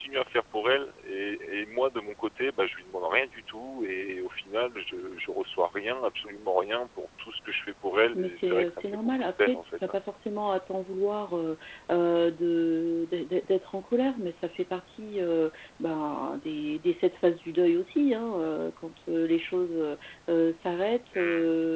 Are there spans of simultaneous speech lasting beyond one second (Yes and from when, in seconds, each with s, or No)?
Yes, from 8.1 s